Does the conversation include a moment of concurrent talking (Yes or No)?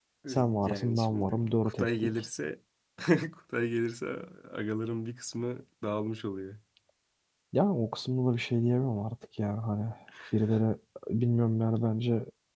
Yes